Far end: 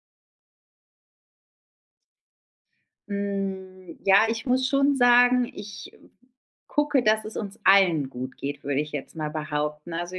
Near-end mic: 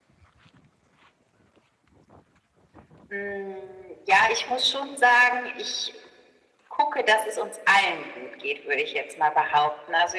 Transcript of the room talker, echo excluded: none

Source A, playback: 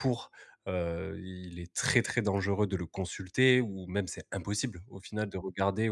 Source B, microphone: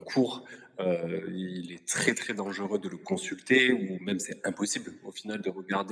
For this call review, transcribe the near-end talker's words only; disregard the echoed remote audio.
none

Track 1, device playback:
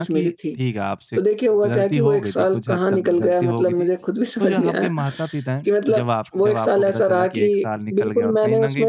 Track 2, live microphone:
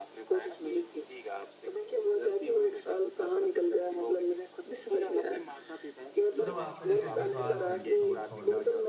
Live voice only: पर वो आपका जैसे विश्वास नहीं छोड़ छोड़ना

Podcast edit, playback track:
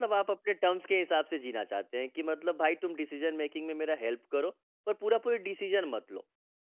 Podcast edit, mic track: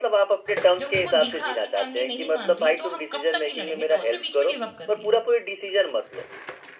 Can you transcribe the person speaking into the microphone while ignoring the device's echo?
जब उसको दिखा कि फैमिली नहीं मान रही तो हम कब तक ही लड़ेंगे, तो उसने बीच में गिव अप कर दिया।

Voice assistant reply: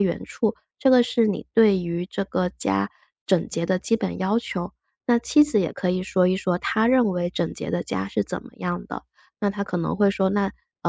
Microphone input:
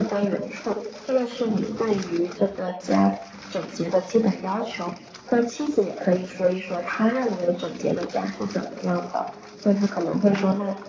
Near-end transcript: none

